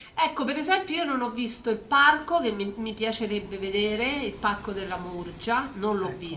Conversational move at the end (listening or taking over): listening